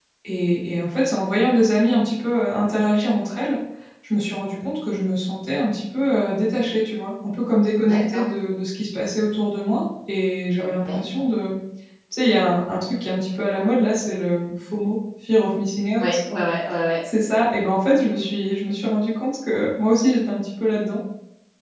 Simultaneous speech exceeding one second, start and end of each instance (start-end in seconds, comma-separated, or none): none